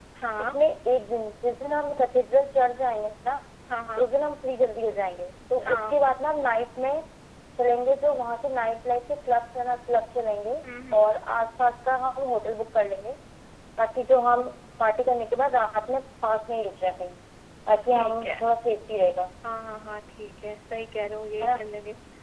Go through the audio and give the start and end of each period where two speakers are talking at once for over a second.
none

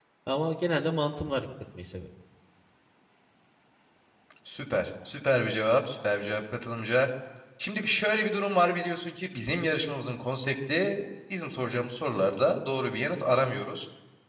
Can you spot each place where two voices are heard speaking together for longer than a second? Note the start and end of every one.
none

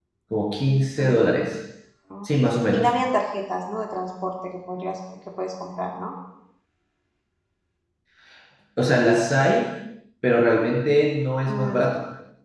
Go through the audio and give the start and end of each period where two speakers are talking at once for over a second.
none

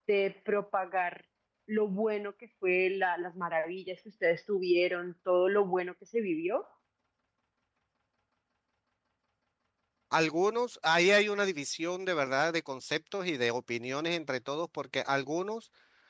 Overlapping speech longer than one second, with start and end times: none

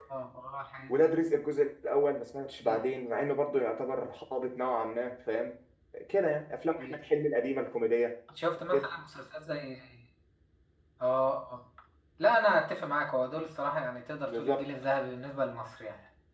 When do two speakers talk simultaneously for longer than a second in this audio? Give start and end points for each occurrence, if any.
none

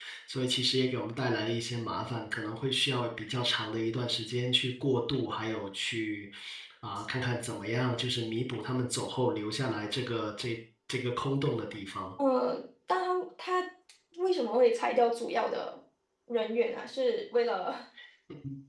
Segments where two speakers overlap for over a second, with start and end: none

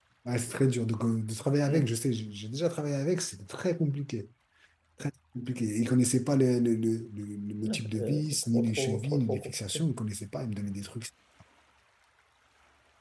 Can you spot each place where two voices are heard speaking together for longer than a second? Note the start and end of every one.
7.6-9.9

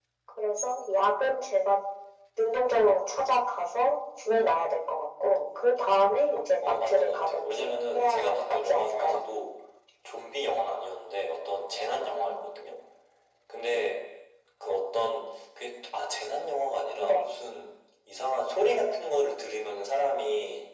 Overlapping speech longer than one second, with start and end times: 6.6-9.2

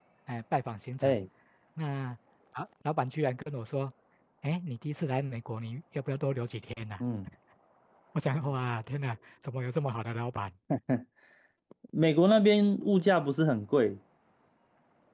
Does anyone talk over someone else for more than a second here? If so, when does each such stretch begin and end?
none

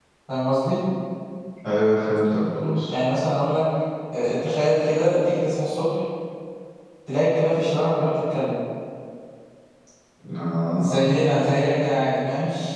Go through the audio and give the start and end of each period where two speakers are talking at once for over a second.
none

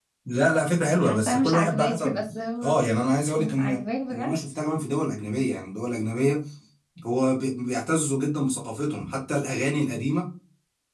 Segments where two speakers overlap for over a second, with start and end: 1.0-2.2

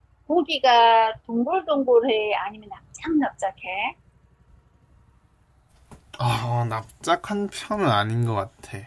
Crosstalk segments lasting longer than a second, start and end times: none

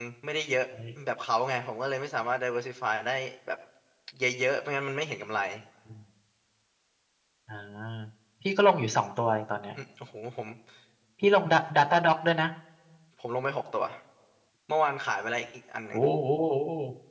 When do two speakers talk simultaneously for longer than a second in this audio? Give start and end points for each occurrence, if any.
none

